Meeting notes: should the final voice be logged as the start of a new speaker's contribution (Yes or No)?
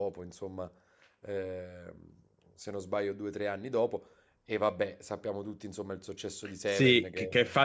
Yes